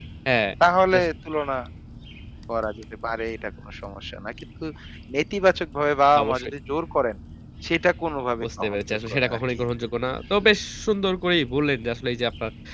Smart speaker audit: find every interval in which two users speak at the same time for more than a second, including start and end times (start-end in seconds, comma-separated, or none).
8.4-9.6